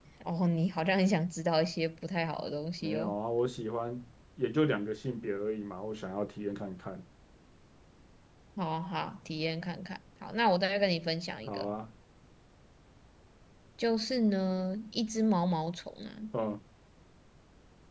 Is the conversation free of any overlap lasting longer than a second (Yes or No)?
Yes